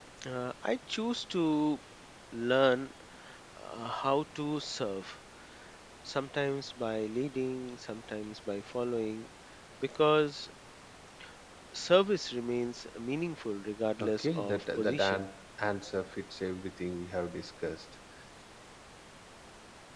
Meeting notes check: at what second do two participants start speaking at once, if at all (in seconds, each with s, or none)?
14.0 s